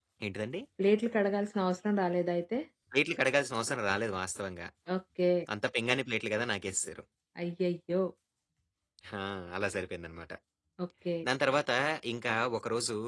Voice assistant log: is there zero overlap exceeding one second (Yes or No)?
Yes